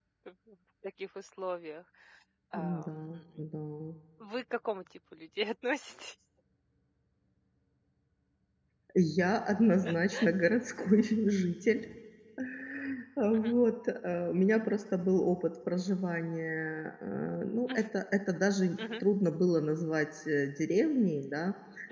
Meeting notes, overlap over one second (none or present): none